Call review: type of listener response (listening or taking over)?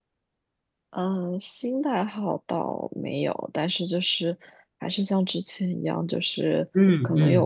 listening